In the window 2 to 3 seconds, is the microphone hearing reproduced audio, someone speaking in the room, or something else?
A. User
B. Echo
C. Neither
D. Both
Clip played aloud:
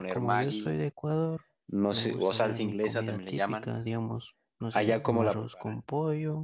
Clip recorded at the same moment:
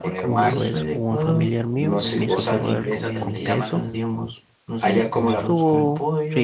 D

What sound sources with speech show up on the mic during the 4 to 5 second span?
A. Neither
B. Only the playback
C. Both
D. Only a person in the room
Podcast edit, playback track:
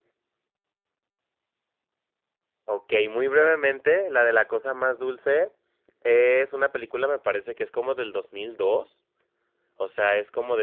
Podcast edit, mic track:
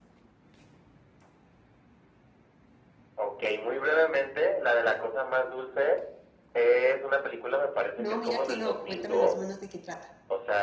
B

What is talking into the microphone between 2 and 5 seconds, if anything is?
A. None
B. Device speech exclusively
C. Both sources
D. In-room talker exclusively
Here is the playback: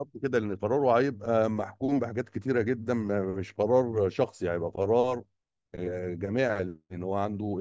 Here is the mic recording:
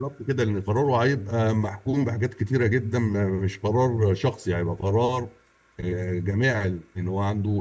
B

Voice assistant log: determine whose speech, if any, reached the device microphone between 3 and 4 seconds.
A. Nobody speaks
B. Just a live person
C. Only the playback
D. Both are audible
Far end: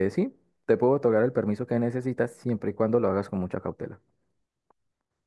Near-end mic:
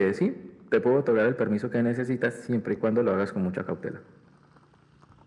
C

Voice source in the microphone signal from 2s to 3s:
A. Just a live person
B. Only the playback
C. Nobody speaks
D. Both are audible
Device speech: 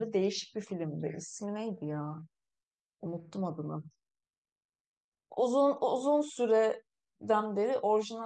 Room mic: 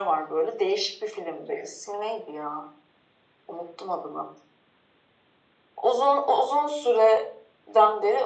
B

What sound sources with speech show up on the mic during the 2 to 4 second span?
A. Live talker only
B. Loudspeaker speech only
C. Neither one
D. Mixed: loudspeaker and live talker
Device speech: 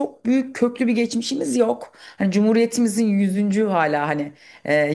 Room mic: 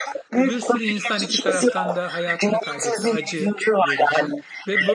D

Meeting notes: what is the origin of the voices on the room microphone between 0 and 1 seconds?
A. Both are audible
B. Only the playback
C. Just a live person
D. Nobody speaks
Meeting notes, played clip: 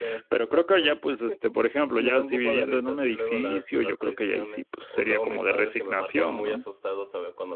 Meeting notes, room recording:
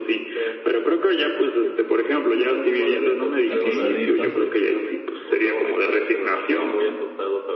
B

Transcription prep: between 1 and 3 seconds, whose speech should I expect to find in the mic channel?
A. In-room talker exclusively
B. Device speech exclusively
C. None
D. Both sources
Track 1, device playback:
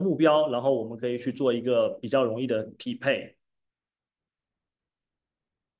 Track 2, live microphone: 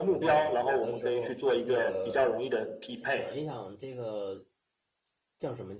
D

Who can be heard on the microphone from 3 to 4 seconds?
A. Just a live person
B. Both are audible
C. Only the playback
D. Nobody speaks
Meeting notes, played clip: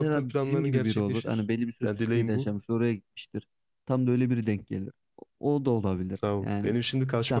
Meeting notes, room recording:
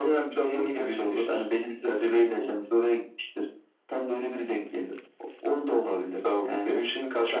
C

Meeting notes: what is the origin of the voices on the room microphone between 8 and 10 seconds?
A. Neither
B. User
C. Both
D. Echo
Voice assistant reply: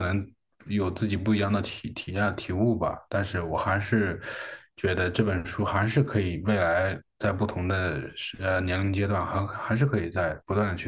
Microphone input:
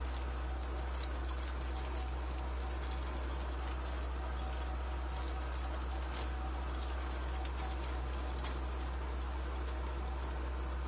A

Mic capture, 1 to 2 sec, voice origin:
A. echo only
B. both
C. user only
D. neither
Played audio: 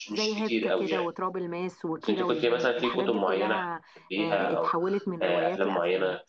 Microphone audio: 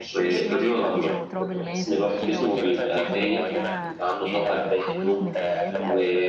B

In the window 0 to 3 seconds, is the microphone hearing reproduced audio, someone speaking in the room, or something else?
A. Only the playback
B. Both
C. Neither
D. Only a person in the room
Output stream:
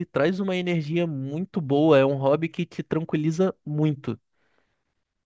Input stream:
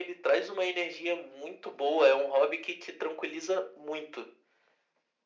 A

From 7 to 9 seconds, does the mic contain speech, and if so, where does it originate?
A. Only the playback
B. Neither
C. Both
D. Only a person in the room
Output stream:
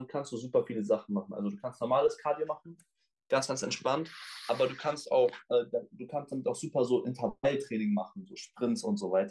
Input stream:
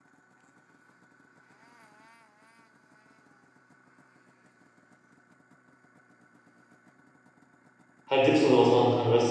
D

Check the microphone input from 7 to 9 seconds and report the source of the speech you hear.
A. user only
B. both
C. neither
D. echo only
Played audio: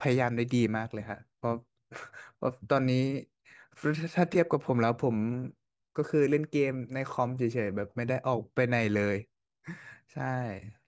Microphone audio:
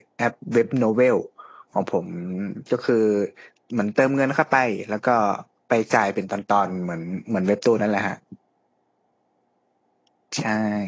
A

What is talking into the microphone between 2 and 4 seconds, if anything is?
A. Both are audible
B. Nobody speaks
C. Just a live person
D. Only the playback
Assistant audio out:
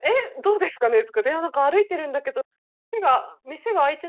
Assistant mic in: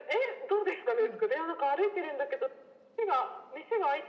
D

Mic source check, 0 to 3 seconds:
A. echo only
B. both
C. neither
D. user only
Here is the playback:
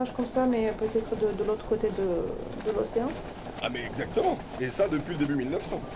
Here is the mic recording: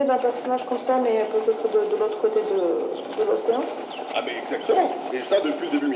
A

